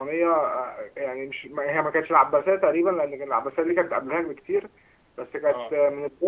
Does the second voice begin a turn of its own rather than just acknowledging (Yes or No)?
No